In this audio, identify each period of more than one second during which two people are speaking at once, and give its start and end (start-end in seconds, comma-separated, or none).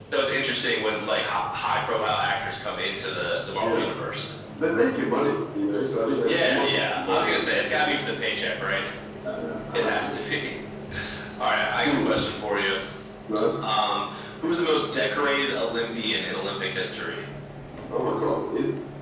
6.3-7.5